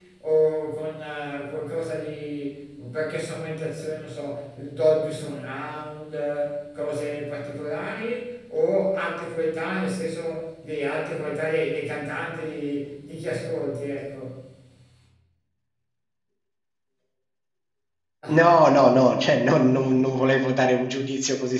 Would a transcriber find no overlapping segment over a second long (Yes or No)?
Yes